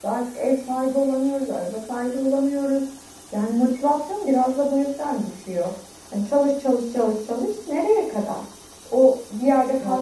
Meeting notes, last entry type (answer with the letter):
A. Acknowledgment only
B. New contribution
A